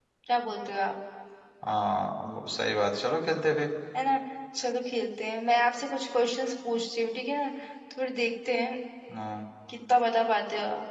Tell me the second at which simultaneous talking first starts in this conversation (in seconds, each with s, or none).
none